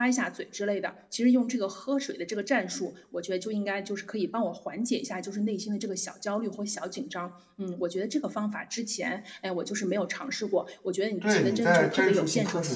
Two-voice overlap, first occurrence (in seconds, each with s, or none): 11.2 s